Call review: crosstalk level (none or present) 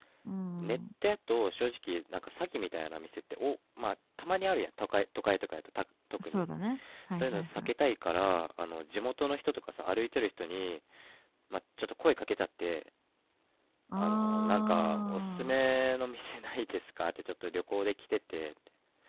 present